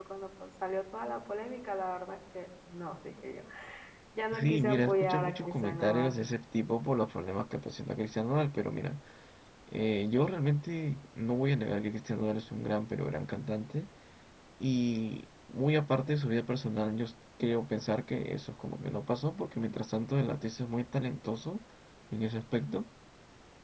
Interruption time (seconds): 4.4 s

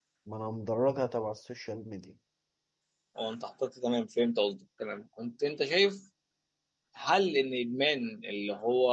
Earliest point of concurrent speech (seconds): none

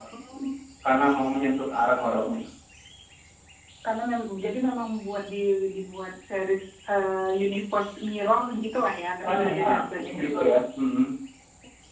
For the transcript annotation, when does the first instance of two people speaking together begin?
9.2 s

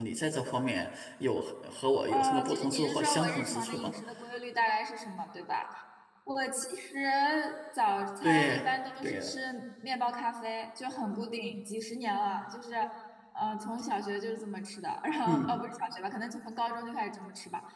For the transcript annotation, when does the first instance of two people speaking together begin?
2.1 s

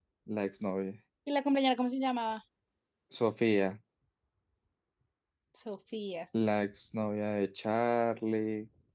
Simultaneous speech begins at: none

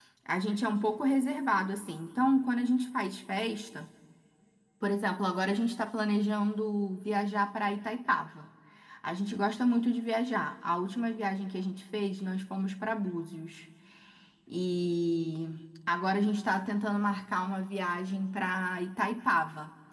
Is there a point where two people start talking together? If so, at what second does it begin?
none

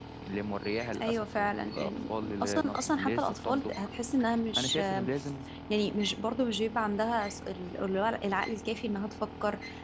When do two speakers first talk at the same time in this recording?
1.0 s

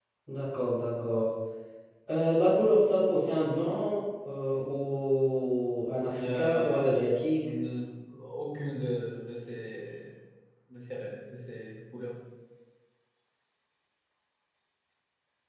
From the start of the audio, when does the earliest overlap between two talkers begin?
6.1 s

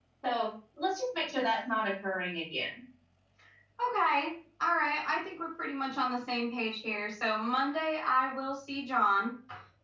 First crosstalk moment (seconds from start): none

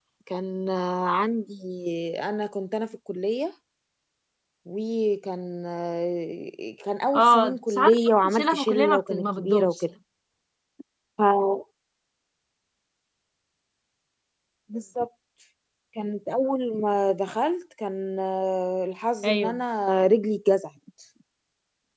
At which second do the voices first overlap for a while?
7.2 s

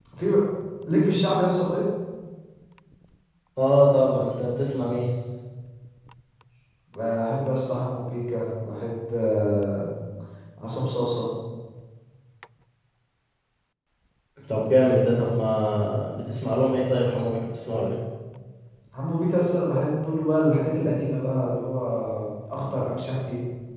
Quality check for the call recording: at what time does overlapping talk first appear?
none

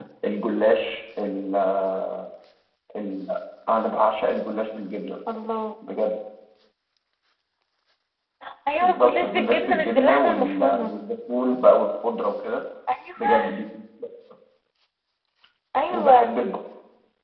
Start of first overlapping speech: 8.8 s

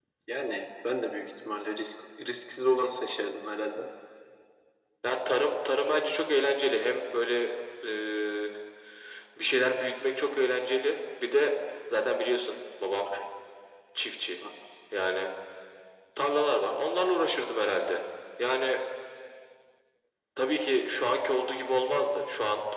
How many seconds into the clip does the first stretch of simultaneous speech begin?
none

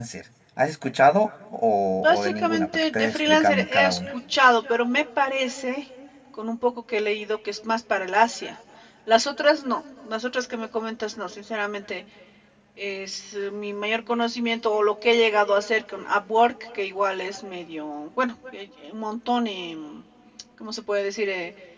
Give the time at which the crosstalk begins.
2.0 s

